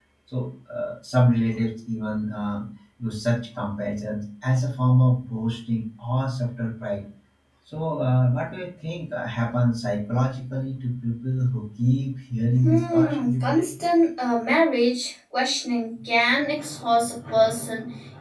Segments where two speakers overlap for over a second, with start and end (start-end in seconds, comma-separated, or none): 12.6-13.8